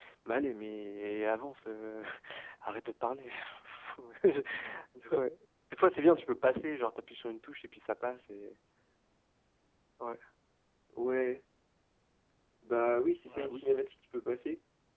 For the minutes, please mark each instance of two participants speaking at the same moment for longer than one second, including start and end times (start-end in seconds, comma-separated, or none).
none